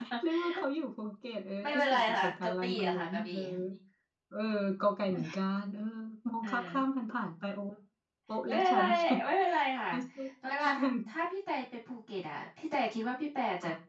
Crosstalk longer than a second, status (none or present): present